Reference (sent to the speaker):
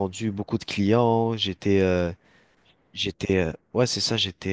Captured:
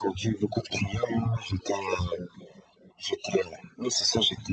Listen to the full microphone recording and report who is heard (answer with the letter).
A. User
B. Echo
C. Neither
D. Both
B